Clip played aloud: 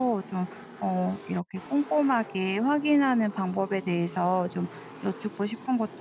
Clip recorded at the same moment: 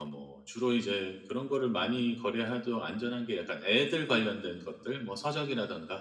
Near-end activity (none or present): present